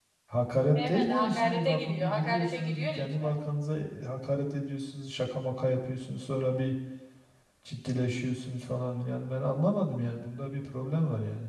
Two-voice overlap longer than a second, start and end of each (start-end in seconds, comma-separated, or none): 0.8-3.4